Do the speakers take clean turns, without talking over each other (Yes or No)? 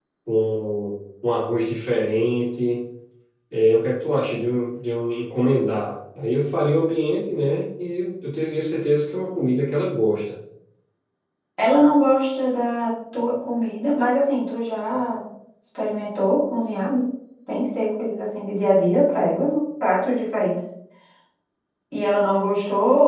Yes